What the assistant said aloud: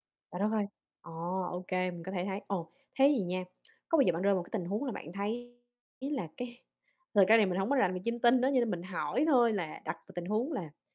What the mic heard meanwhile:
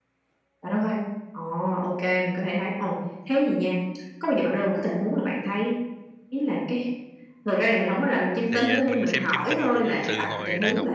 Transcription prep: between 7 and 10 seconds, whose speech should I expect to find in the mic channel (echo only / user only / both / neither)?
both